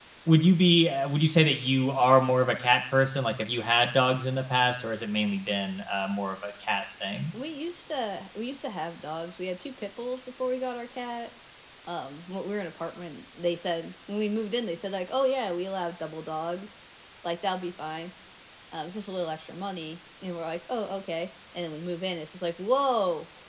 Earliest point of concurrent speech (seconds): none

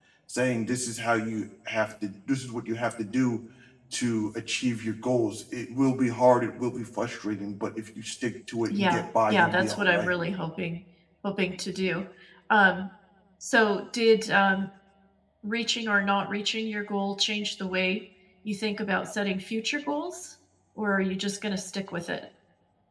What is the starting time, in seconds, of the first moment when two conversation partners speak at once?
8.7 s

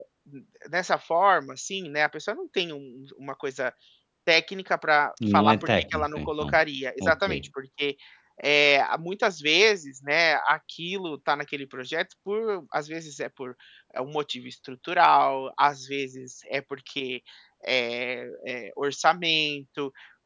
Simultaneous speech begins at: 5.3 s

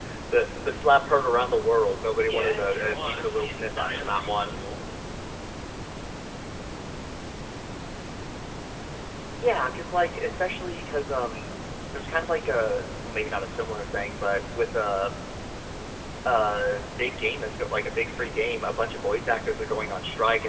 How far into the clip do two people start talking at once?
2.2 s

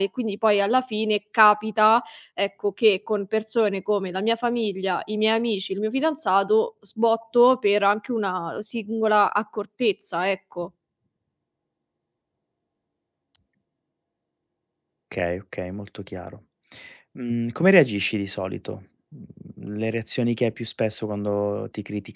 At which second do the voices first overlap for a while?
none

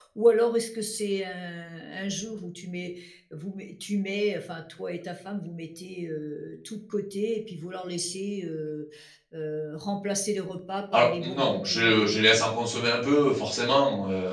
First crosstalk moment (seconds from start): 10.9 s

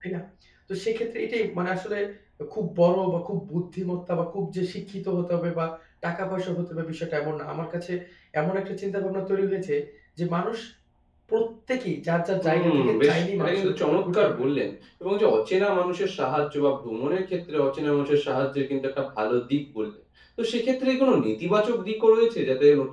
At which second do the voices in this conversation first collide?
12.4 s

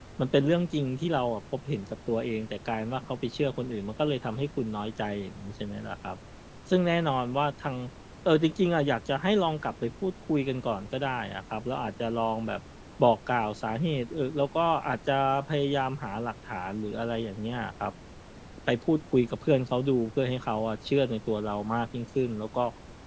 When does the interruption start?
none

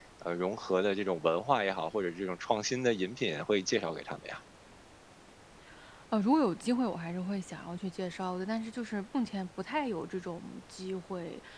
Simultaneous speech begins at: none

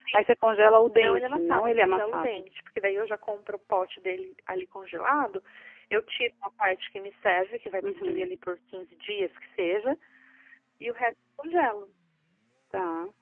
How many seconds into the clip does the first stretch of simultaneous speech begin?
0.9 s

